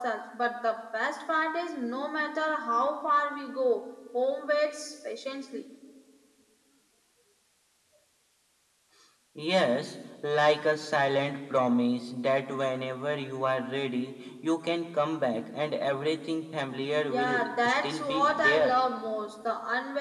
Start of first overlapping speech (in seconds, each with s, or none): 17.1 s